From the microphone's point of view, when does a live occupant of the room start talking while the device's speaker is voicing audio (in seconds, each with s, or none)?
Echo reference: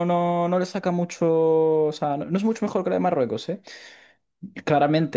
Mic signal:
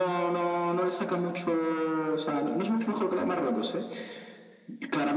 none